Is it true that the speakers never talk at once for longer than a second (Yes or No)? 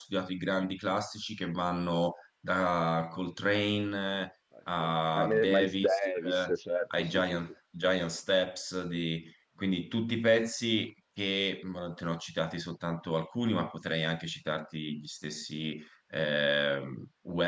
No